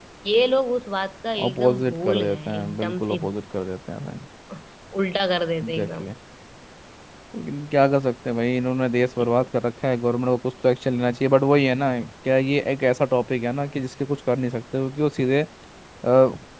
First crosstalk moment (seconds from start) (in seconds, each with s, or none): 1.5 s